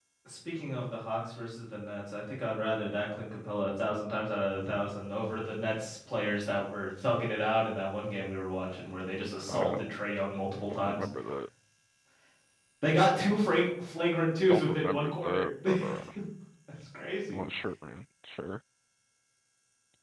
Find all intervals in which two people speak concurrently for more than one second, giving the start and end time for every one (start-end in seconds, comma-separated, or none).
14.5-16.1